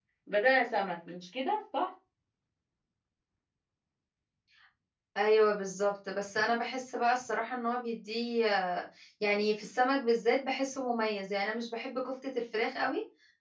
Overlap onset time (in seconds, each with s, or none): none